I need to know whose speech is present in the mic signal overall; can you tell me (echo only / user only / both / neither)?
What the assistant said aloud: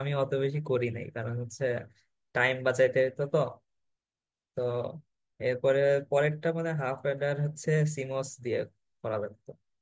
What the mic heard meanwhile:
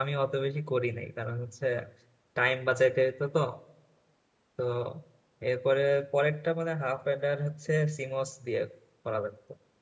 echo only